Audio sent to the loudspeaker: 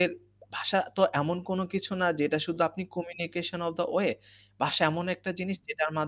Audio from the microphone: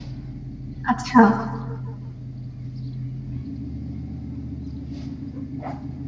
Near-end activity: present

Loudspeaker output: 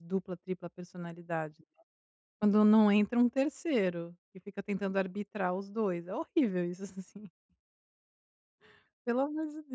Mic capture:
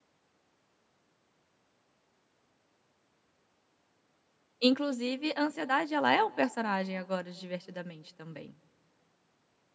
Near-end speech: present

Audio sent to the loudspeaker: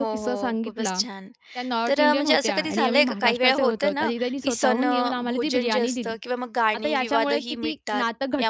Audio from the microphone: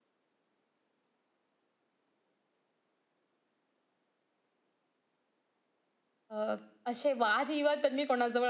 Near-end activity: present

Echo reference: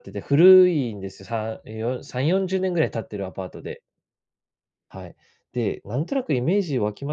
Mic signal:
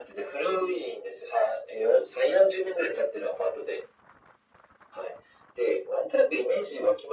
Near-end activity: none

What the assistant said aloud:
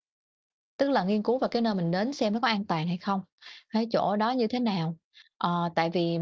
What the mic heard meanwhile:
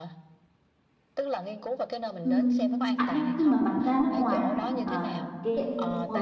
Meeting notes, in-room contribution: present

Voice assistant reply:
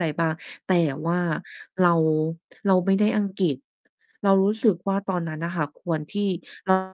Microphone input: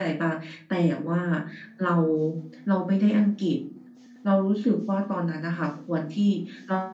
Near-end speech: none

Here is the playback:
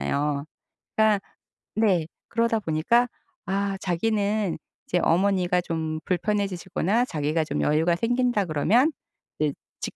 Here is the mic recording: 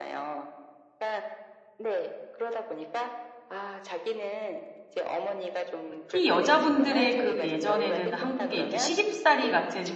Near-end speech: present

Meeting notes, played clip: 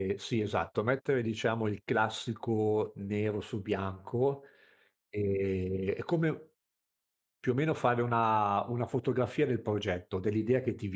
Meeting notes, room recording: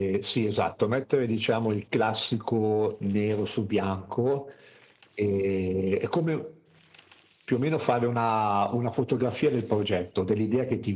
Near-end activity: none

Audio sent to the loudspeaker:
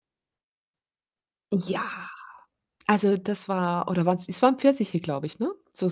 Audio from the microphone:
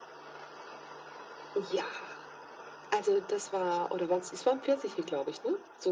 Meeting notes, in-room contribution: none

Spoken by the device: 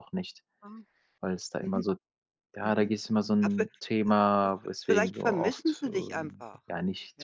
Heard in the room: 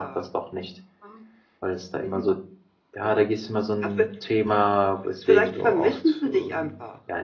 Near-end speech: none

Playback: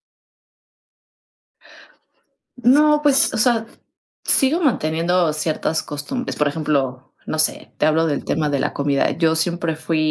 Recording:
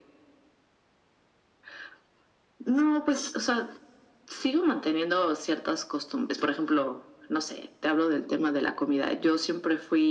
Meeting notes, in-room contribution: none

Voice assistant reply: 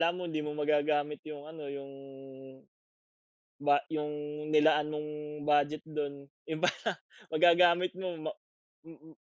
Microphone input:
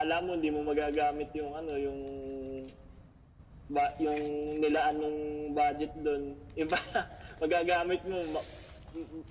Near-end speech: none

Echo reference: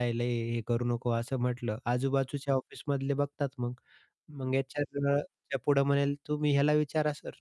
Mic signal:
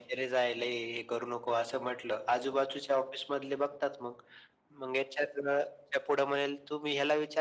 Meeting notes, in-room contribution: none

